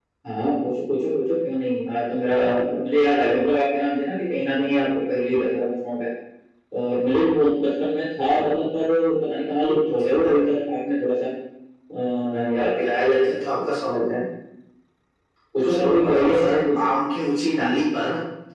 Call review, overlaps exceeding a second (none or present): present